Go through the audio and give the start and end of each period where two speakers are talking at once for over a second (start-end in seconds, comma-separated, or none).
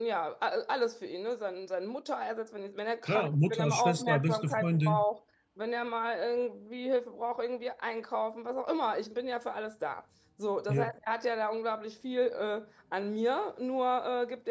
3.1-5.0